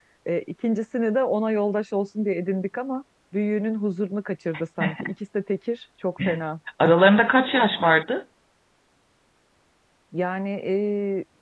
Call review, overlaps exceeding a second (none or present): none